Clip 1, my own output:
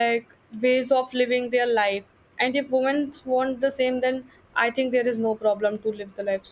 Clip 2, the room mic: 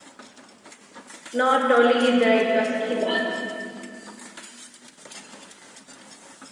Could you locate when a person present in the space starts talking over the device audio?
1 s

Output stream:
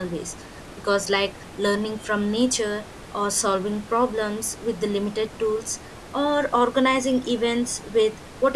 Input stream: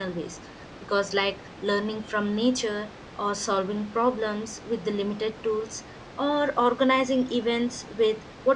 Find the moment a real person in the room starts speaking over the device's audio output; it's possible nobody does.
none

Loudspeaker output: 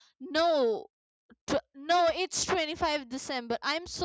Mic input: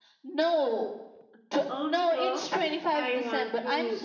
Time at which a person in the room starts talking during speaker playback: 2 s

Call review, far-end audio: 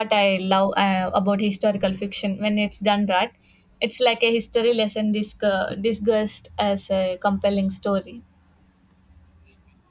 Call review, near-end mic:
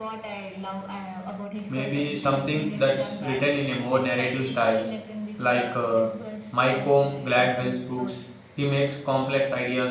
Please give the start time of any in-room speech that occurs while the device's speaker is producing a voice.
2 s

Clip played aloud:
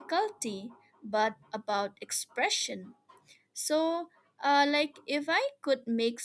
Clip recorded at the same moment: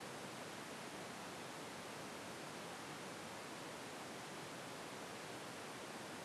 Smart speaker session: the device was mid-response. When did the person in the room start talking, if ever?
none

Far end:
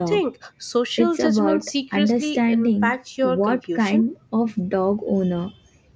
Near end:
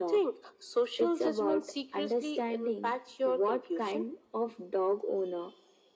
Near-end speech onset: none

